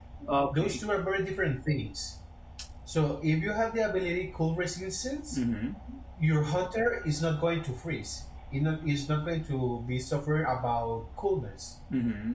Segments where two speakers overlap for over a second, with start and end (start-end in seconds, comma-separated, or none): none